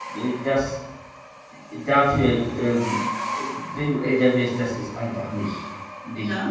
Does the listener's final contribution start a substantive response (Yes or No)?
No